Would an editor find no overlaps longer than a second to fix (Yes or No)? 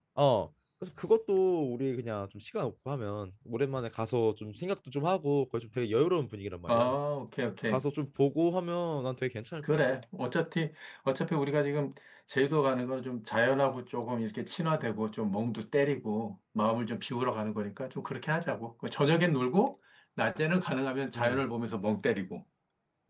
Yes